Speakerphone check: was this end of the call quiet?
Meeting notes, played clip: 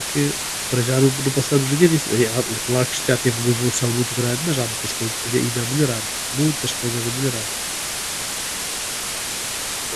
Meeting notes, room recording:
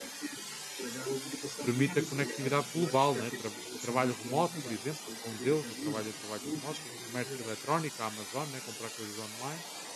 No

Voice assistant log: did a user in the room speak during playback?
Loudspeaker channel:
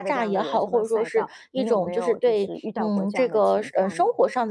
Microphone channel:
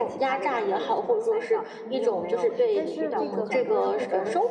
Yes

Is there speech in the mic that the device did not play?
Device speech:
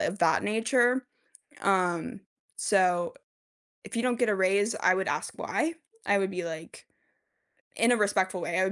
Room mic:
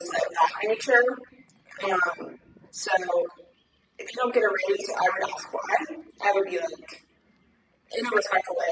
No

